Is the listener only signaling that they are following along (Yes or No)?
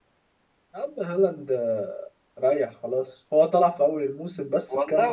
No